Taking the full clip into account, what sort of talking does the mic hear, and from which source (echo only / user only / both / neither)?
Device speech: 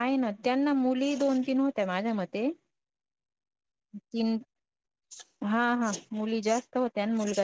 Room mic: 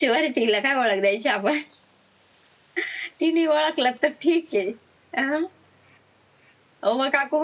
user only